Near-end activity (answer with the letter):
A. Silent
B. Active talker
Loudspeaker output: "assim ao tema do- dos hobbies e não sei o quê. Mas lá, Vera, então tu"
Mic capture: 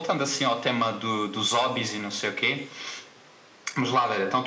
A